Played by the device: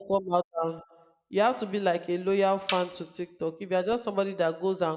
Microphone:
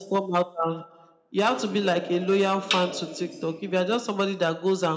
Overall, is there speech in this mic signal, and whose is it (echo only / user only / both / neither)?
both